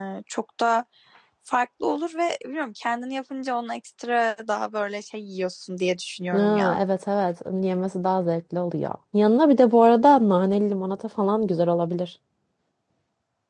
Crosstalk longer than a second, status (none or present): none